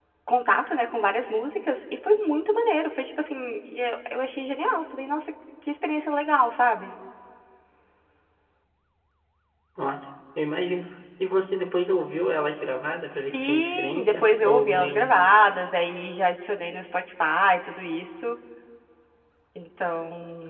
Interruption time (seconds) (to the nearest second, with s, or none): 13 s